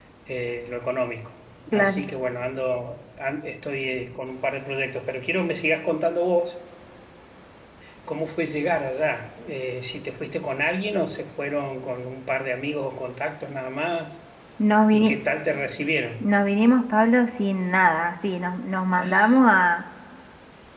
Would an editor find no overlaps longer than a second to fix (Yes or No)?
Yes